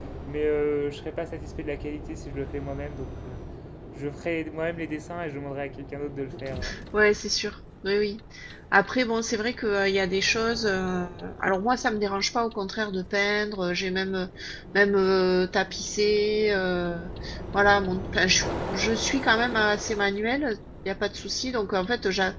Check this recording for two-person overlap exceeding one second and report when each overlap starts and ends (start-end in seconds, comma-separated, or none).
none